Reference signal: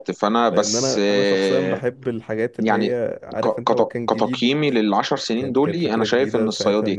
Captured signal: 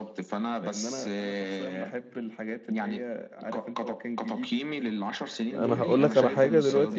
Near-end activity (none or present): present